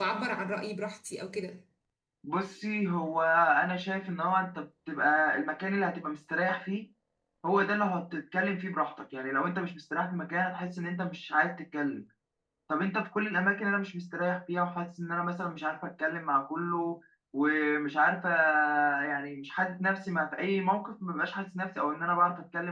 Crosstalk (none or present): none